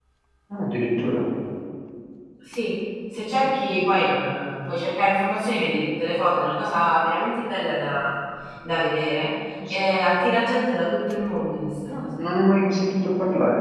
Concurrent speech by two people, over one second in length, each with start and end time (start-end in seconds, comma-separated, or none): none